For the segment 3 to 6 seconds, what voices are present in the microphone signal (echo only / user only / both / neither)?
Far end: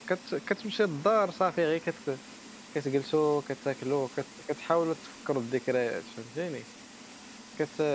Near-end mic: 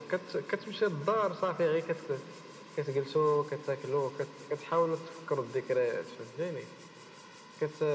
echo only